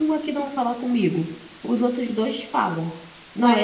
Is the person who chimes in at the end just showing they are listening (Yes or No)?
Yes